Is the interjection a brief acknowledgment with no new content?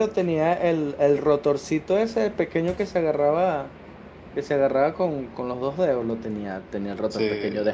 Yes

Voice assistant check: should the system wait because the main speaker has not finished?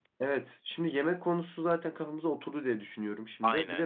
Yes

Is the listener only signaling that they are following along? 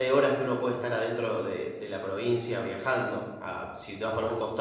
Yes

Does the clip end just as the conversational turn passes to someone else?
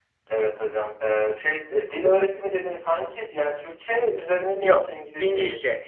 Yes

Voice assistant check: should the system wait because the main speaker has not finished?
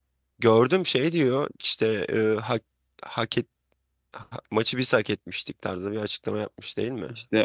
No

